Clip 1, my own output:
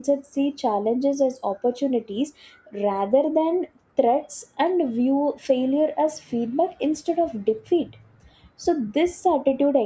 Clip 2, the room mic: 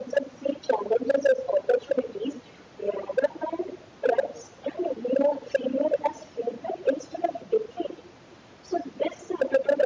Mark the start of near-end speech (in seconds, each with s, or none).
none